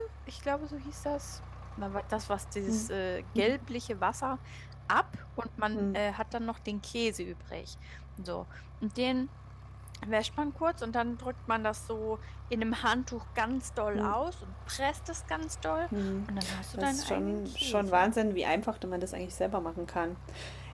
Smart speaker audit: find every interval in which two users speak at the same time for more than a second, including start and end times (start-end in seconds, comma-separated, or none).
16.8-18.1